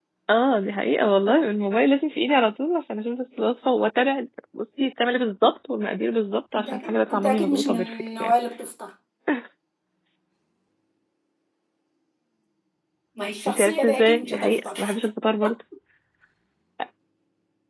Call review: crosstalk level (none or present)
present